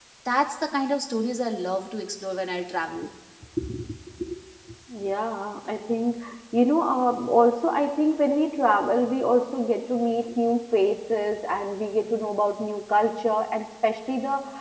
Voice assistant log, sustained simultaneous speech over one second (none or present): none